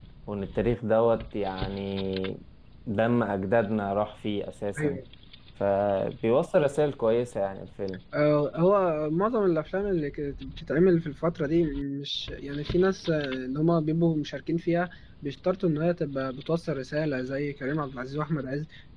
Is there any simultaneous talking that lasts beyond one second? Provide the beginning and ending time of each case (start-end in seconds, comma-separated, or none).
none